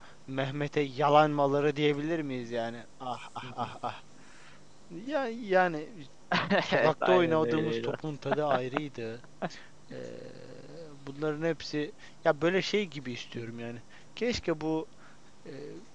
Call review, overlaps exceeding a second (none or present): present